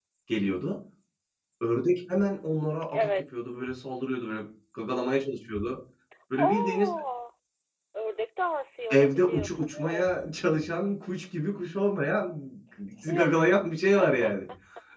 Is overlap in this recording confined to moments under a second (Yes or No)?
No